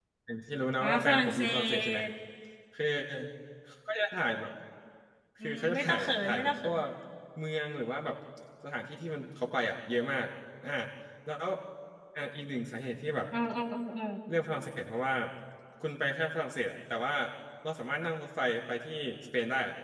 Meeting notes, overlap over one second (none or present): present